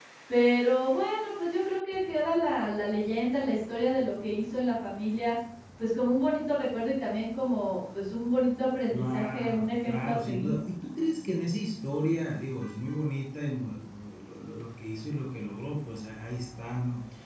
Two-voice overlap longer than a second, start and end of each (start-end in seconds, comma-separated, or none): 8.9-10.6